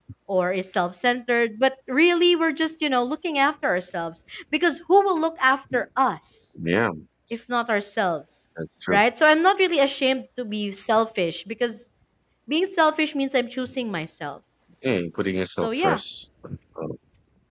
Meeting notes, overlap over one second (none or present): none